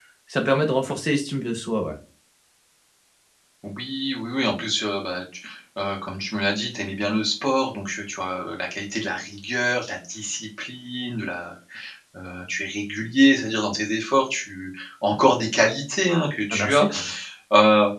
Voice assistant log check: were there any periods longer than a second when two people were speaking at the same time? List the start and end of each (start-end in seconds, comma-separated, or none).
none